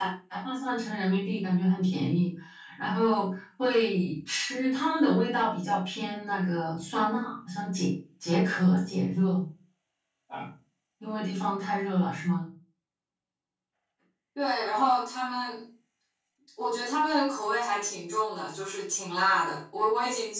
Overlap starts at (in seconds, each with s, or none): none